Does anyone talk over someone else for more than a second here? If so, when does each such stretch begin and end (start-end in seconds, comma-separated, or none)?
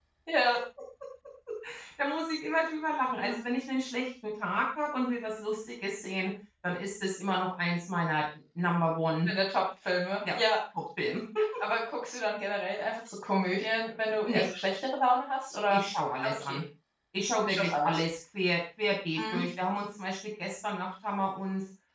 none